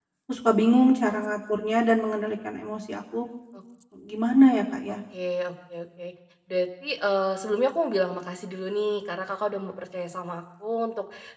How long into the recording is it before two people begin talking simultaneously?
none

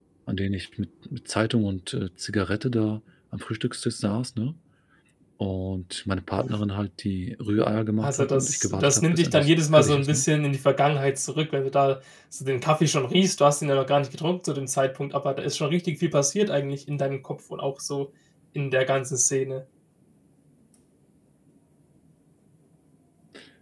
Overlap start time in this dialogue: 8.0 s

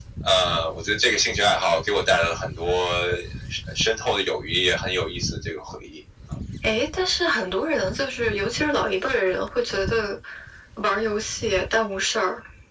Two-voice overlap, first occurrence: none

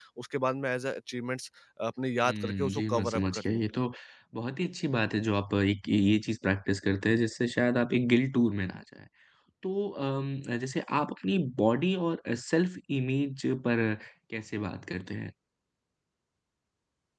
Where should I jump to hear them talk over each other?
2.2 s

